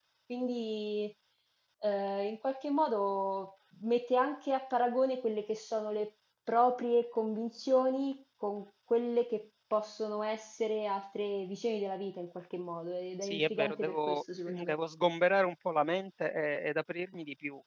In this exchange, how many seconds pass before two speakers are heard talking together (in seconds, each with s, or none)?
13.2 s